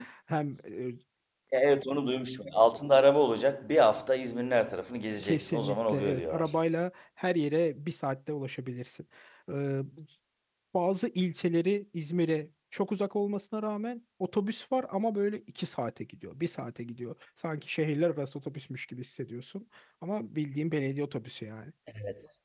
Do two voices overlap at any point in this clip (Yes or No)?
Yes